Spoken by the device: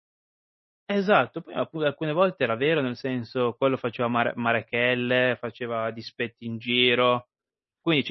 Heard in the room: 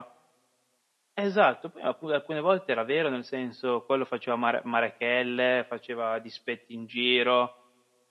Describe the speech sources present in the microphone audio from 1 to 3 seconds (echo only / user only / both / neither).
echo only